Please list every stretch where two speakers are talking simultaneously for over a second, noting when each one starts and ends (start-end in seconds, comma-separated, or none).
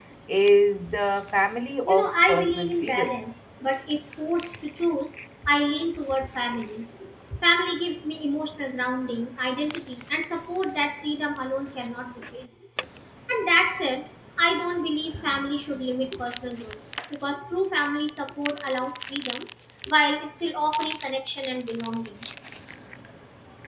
1.9-3.2